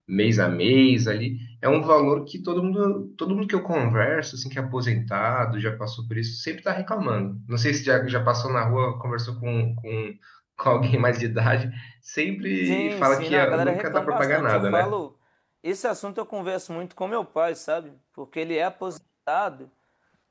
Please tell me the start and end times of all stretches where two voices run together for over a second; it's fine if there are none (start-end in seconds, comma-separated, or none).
12.6-15.0